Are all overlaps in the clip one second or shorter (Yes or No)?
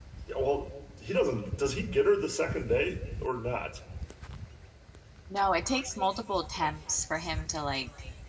Yes